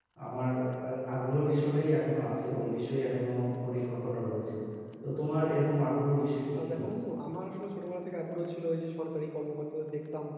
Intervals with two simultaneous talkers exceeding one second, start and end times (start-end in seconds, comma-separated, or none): none